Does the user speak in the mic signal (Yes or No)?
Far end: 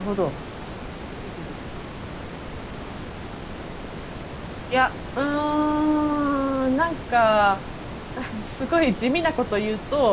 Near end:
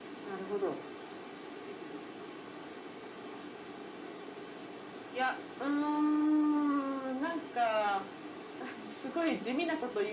No